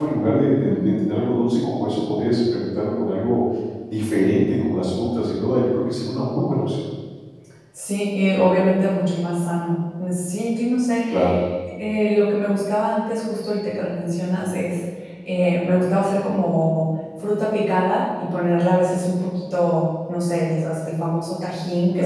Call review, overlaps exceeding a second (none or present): none